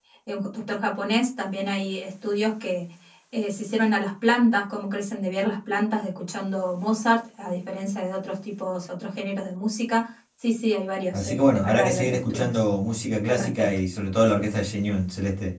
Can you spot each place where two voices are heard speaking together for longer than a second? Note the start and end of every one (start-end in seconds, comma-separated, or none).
11.1-12.6